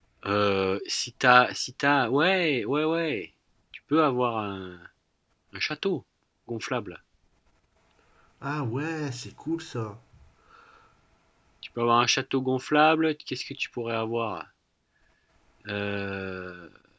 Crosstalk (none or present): none